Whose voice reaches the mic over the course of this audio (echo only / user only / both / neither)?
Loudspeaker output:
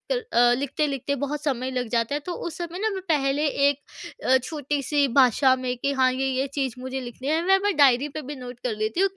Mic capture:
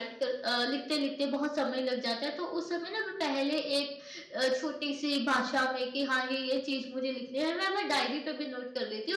echo only